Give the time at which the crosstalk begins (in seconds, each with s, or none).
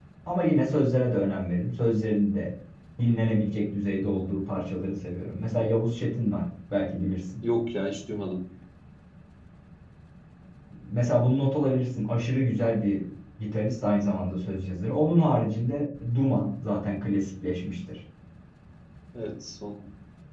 none